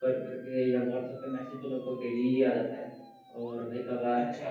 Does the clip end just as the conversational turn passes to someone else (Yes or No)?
No